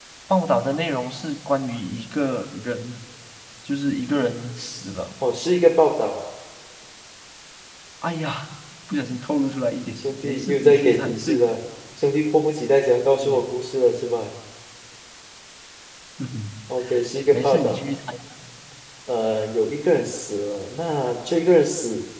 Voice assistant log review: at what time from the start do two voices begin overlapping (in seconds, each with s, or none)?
10.0 s